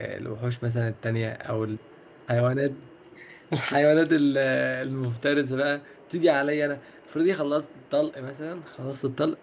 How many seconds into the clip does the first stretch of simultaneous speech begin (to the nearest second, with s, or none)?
none